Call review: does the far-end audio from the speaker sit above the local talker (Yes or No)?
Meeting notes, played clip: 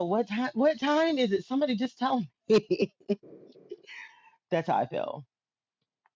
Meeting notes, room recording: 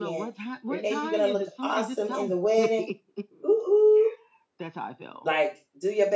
No